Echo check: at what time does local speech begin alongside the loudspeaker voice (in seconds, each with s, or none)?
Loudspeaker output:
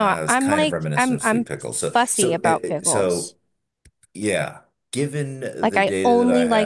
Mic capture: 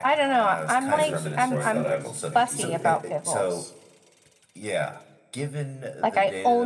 0.9 s